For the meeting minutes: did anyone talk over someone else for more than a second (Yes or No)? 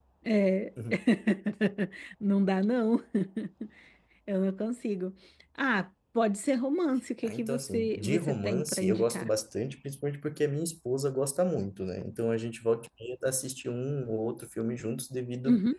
Yes